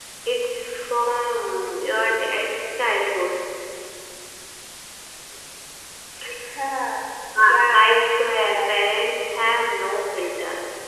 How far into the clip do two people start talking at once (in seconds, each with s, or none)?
7.5 s